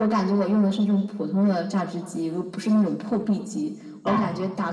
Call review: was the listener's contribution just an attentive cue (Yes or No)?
Yes